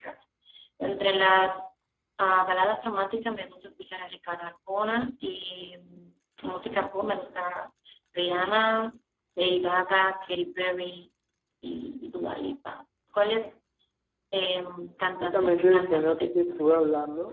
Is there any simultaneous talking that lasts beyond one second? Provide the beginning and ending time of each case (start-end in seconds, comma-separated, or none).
15.2-16.6